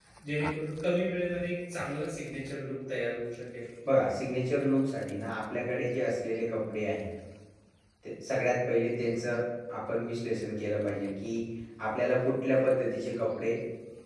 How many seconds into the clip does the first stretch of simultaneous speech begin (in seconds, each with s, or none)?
none